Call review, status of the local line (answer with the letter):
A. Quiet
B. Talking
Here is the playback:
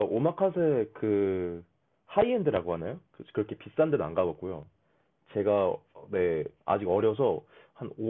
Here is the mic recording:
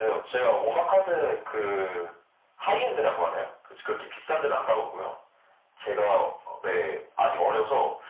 A